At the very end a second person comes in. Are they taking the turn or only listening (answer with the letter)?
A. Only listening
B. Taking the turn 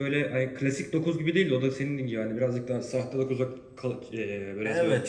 B